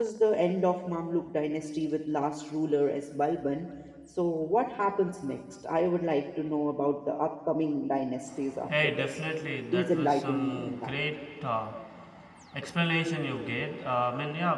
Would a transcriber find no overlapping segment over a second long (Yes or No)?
No